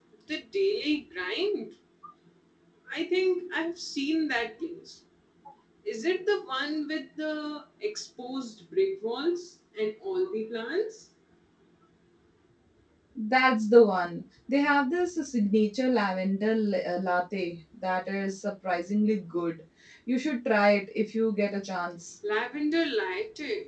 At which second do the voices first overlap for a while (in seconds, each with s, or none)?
none